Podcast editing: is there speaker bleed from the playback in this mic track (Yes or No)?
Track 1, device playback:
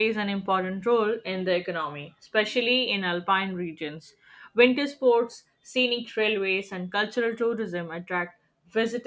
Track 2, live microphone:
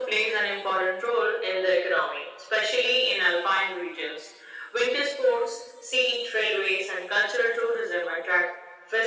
Yes